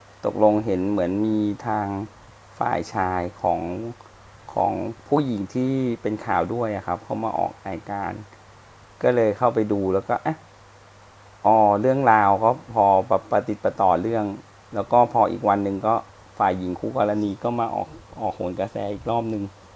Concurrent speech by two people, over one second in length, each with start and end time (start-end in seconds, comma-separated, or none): none